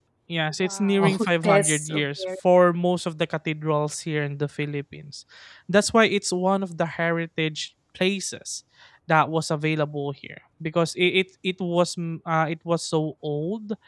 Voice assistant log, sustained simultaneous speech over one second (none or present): present